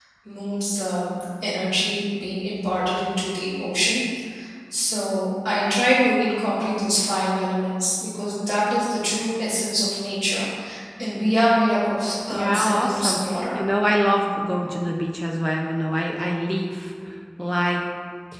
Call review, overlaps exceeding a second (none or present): present